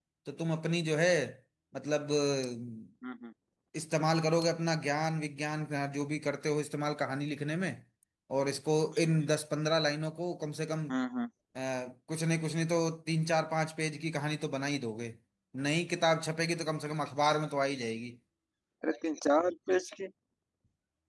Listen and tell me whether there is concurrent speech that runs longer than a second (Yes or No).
No